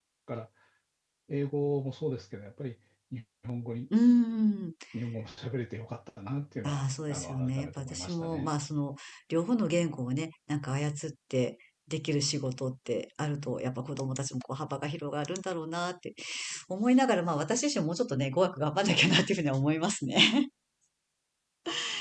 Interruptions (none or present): present